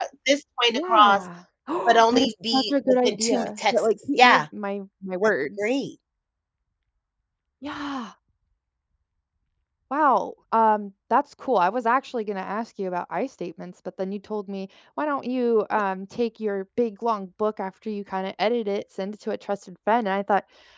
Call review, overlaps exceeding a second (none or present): present